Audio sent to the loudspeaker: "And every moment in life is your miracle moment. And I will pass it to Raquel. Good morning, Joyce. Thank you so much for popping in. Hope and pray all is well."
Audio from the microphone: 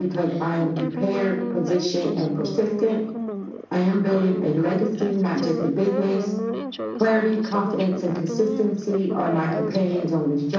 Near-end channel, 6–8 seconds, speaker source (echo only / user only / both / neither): both